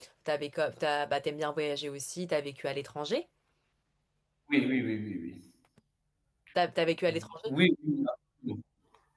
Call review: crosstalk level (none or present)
none